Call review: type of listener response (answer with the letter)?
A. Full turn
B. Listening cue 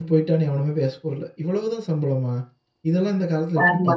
B